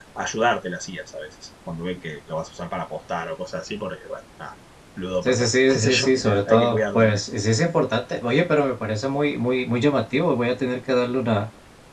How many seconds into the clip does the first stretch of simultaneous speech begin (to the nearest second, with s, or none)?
5 s